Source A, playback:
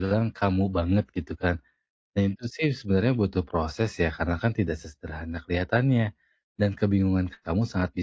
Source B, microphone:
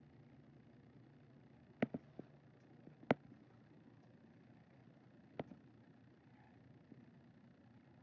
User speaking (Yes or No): No